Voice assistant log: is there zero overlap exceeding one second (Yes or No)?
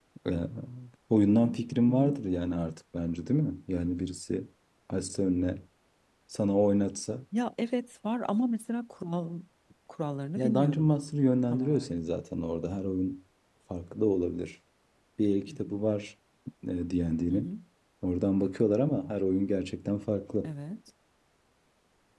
Yes